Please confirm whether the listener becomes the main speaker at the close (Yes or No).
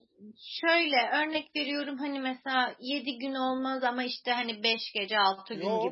Yes